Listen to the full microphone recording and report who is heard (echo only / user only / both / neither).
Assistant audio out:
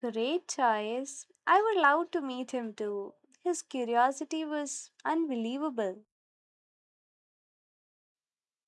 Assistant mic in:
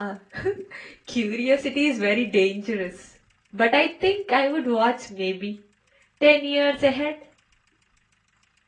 user only